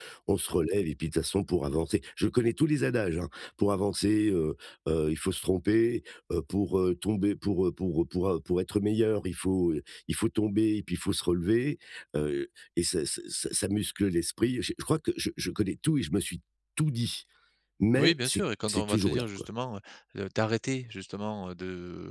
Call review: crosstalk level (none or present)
present